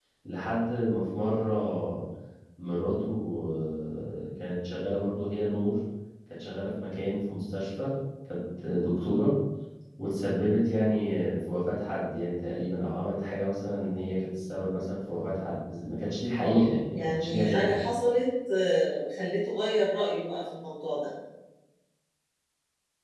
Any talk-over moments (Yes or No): Yes